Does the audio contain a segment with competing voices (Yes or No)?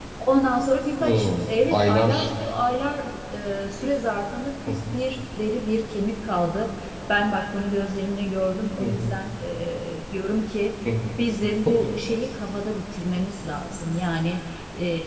Yes